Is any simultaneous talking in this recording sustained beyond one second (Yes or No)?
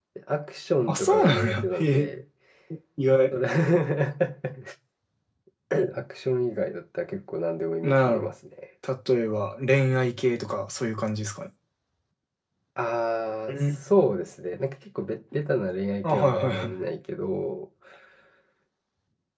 Yes